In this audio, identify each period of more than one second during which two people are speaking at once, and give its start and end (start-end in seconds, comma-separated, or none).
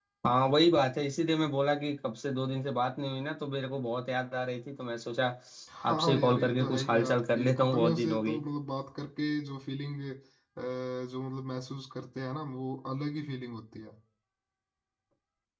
5.9-8.4